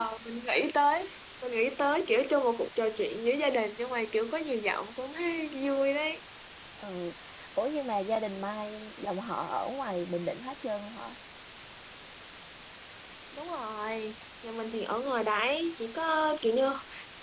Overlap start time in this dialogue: none

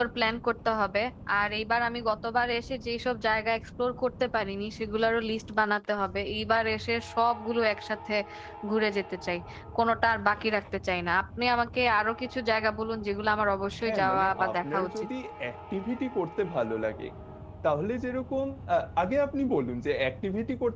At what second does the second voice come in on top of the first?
13.7 s

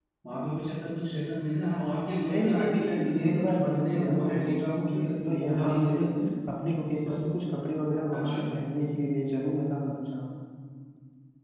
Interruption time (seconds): 2.3 s

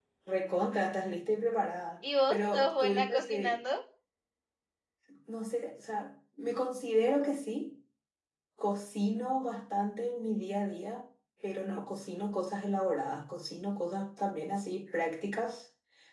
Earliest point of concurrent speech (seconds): 2.3 s

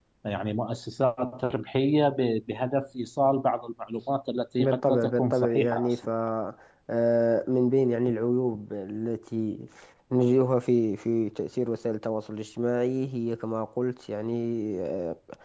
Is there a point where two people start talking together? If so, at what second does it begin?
4.6 s

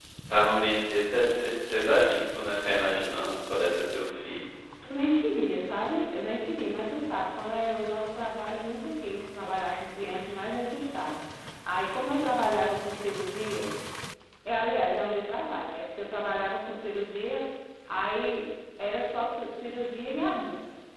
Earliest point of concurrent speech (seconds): none

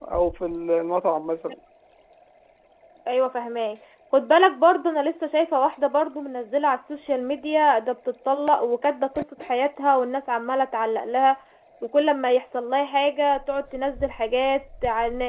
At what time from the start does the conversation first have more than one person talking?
none

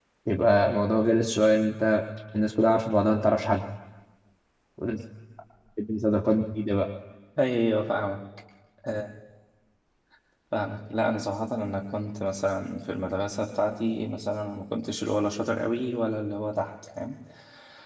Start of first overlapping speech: none

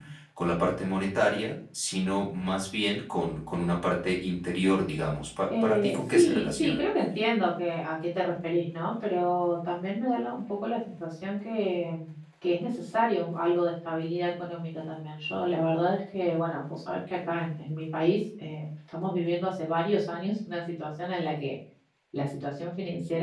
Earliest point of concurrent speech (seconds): 5.5 s

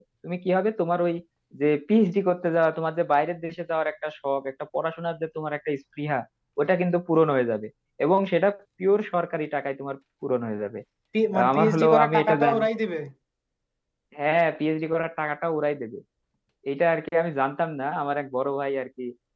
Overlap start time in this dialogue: 11.4 s

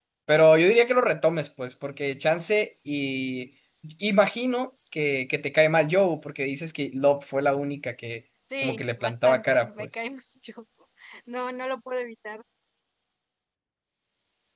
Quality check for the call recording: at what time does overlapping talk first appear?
8.5 s

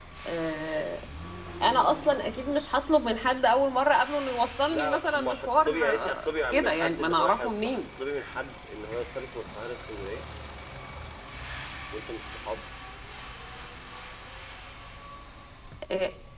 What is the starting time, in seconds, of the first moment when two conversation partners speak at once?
4.7 s

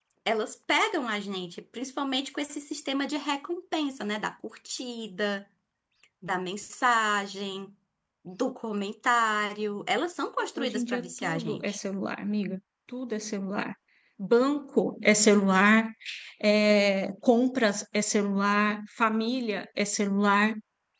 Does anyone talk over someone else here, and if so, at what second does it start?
10.4 s

